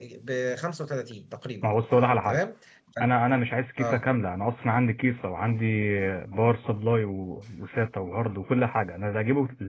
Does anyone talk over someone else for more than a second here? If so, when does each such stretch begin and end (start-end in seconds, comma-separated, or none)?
none